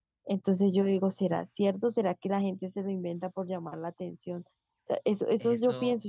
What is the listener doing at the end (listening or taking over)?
taking over